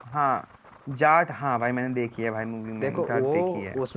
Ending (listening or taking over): taking over